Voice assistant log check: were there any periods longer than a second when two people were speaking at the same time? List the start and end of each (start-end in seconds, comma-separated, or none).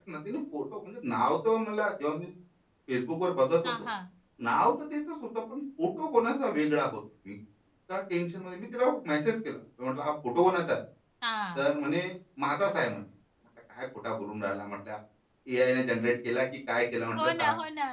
none